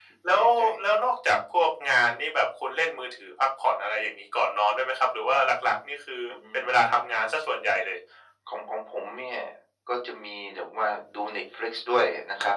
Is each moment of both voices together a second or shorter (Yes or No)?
Yes